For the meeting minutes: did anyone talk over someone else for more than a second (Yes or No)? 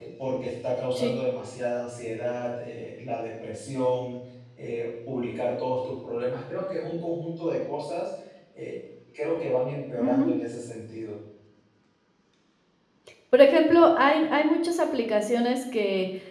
No